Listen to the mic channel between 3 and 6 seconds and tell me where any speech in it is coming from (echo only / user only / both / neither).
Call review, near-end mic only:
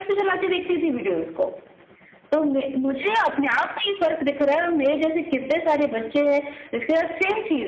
echo only